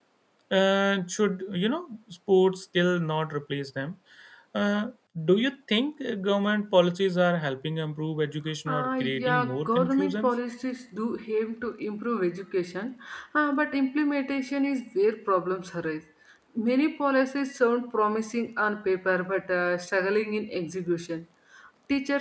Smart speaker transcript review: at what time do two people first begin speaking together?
9 s

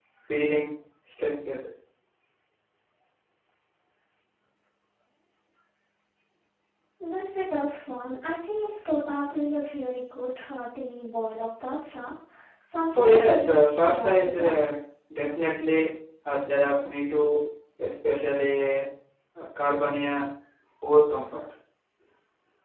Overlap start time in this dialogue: 13 s

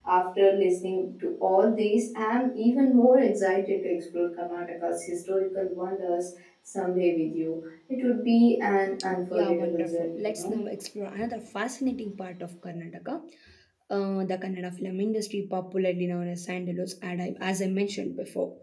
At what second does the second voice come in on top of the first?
9 s

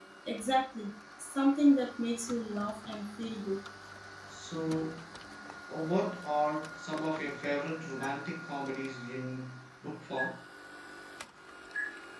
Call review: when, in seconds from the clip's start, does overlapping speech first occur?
none

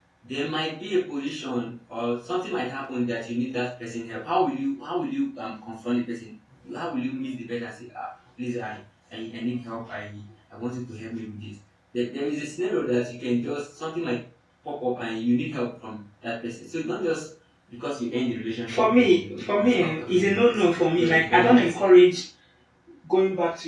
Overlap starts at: 19 s

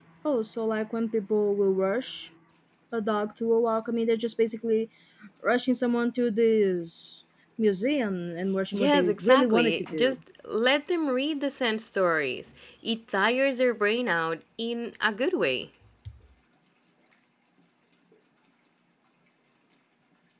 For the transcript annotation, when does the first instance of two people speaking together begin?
9 s

